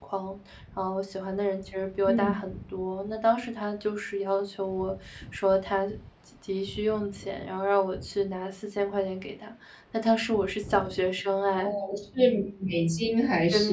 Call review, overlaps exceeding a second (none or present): none